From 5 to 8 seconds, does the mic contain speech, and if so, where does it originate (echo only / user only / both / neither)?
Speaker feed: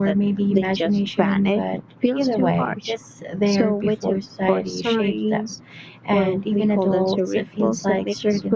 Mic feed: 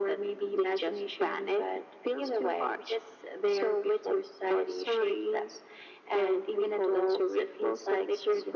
echo only